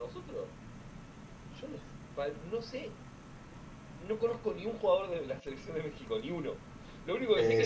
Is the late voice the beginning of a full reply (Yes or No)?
No